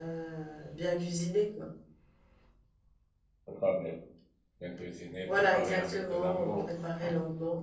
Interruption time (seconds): 5.3 s

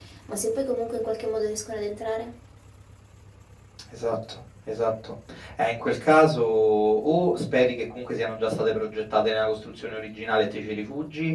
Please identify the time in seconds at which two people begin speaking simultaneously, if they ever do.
none

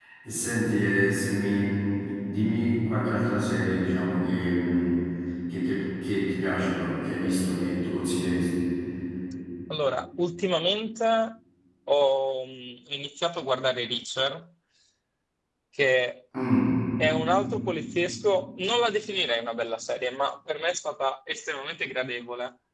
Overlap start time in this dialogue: none

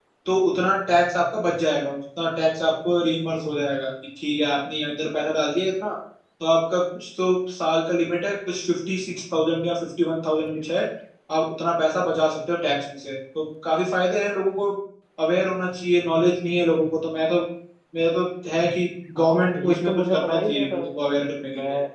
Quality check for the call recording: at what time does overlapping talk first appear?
19.2 s

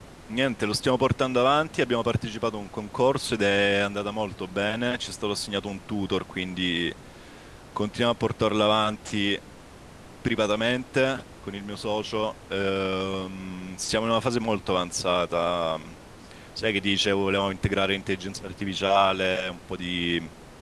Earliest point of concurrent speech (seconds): none

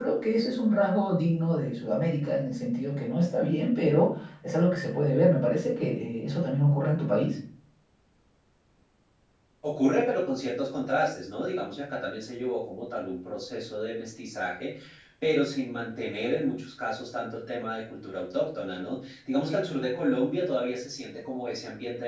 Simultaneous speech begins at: none

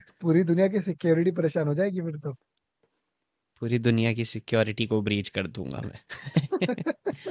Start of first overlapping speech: none

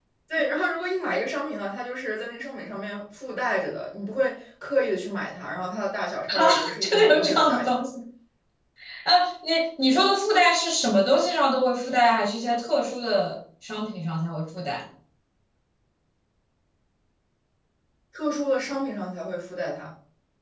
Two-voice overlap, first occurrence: 6.3 s

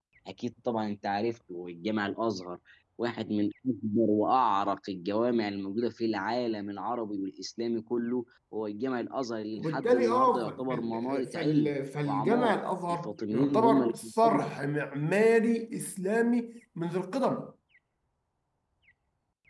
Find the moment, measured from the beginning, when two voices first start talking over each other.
9.6 s

